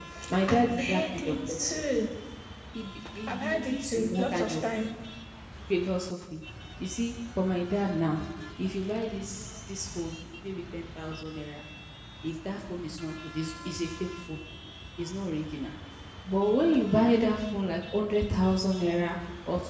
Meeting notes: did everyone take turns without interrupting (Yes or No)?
No